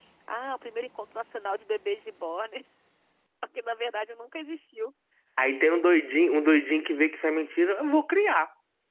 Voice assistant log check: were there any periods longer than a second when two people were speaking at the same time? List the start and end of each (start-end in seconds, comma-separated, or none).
none